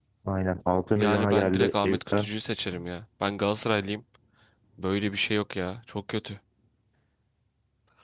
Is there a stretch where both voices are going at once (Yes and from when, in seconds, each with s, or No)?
Yes, from 1.0 s